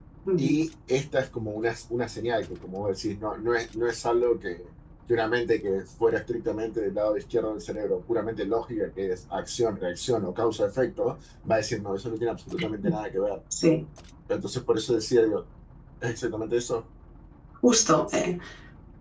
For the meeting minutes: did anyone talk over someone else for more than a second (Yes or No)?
No